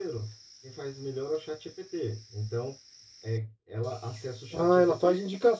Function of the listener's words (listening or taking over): taking over